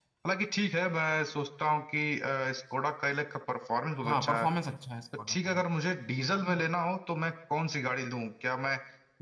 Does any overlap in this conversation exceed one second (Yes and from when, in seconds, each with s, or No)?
No